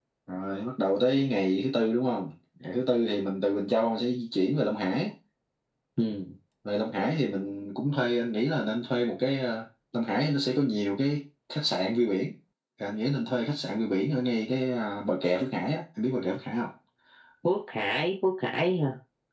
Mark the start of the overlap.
none

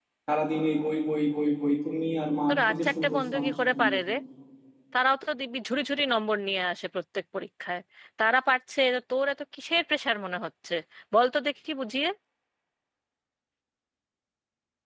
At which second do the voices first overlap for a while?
2.5 s

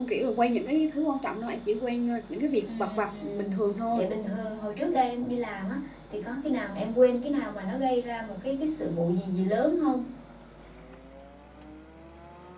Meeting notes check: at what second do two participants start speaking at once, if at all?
2.6 s

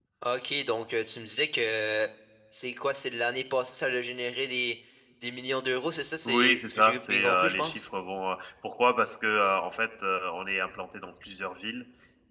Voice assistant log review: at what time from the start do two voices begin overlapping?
6.2 s

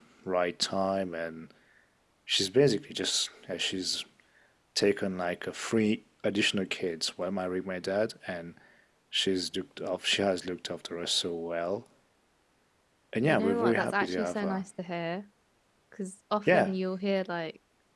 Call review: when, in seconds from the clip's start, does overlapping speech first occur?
13.2 s

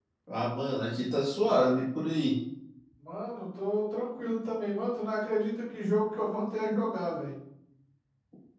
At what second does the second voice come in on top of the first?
none

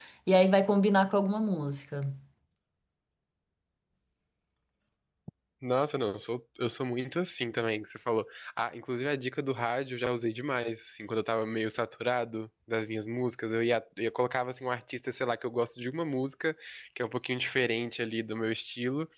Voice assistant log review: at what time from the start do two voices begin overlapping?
none

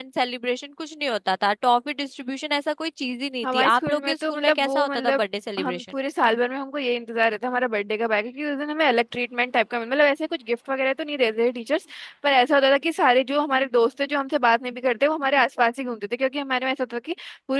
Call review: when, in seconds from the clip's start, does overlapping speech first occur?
3.4 s

